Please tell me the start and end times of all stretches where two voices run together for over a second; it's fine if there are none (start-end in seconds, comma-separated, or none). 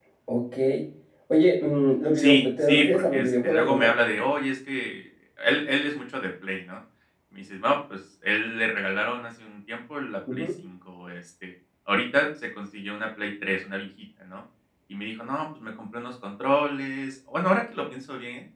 2.2-3.9